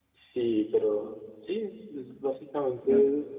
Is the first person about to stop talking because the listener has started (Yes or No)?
No